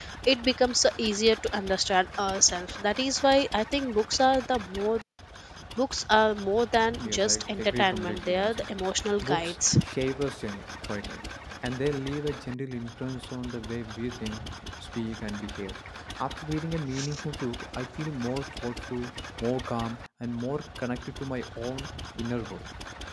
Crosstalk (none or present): present